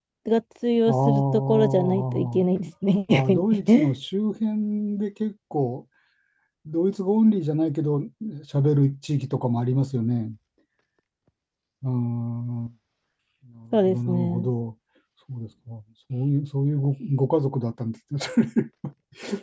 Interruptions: present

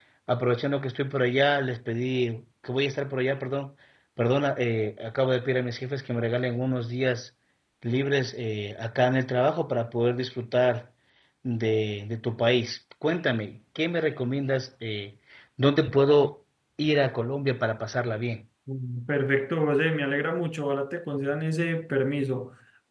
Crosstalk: none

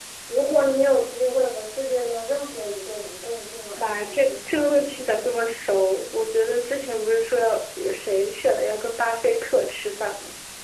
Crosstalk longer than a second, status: present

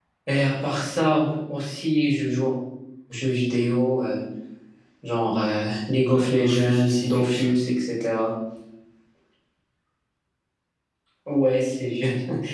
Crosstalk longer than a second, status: present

